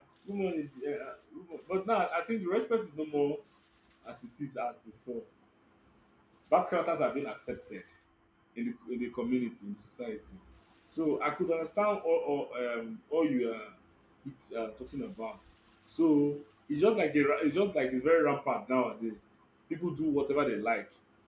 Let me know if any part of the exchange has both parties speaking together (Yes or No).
No